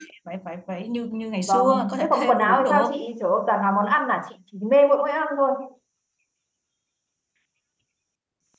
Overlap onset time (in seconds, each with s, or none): 1.5 s